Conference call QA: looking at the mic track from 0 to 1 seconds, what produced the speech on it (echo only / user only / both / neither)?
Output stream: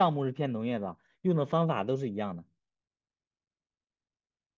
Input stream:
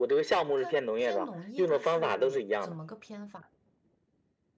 both